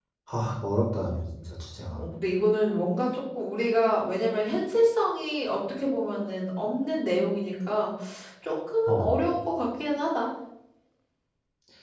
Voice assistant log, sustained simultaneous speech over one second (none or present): none